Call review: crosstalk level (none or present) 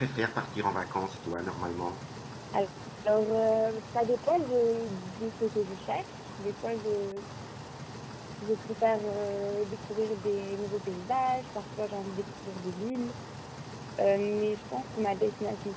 none